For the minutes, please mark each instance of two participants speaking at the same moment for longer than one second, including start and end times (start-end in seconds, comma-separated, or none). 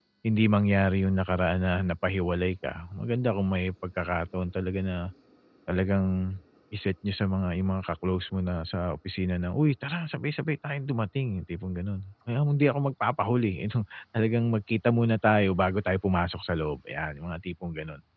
none